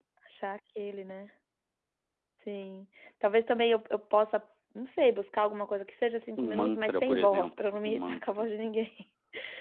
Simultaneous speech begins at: 6.3 s

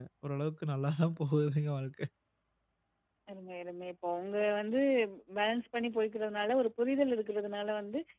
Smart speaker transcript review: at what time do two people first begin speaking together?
none

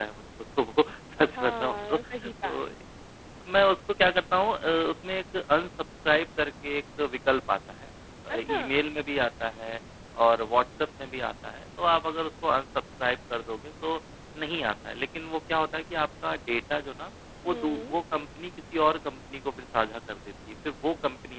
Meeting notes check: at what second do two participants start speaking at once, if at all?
1.3 s

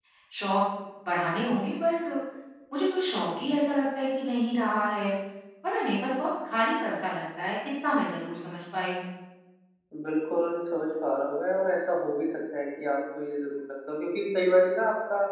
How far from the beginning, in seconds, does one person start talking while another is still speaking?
none

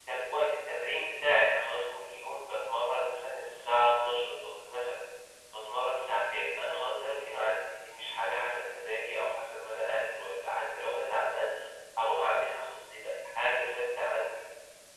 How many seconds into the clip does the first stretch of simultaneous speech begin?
none

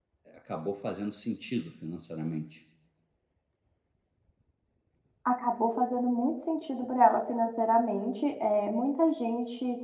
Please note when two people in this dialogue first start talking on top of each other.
none

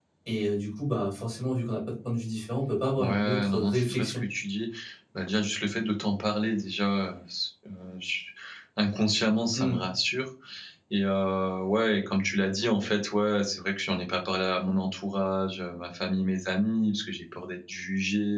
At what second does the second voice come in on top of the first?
3.0 s

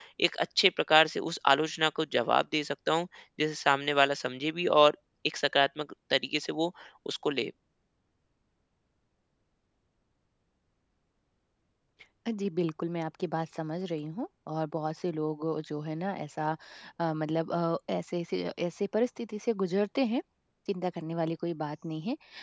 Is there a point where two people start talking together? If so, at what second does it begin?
none

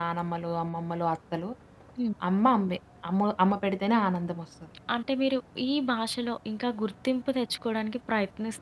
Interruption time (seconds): none

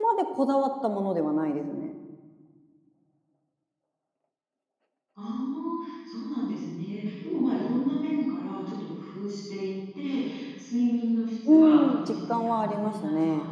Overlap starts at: 11.5 s

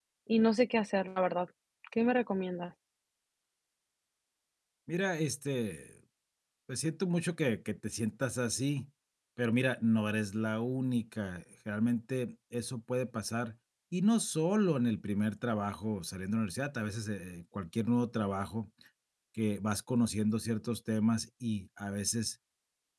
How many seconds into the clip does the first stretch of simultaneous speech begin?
none

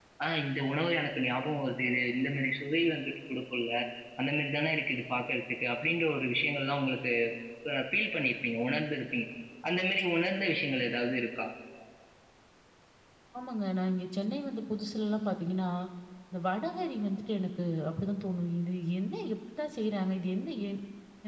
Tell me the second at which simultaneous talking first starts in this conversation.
none

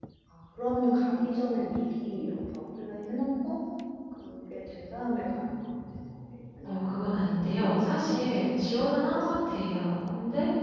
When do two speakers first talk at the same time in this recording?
6.6 s

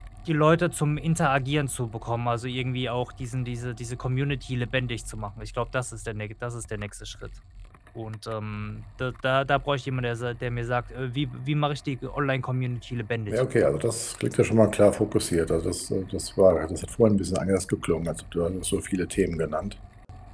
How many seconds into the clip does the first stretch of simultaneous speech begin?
none

